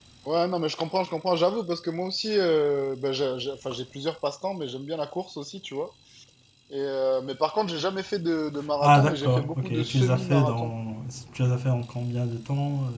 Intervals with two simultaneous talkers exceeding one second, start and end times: 8.8-10.7

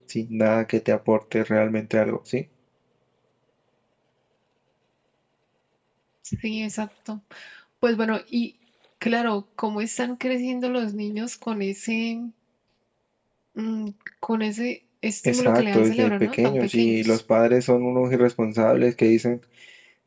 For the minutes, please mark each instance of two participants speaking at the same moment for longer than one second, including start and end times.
15.2-17.2

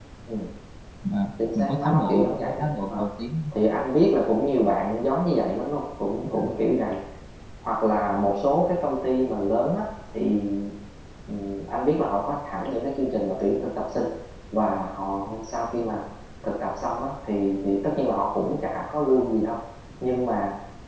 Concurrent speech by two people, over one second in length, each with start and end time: 1.6-3.0

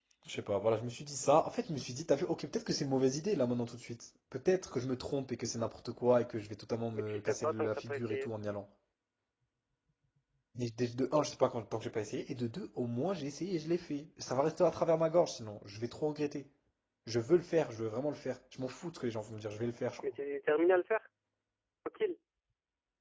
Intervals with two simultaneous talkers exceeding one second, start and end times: 6.9-8.3

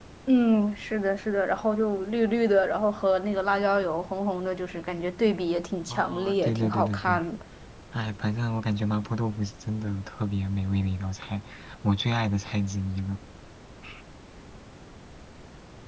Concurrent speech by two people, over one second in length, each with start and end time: 5.9-7.2

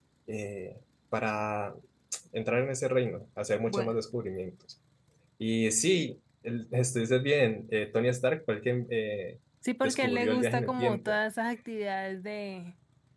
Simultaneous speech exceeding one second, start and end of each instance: 9.8-11.2

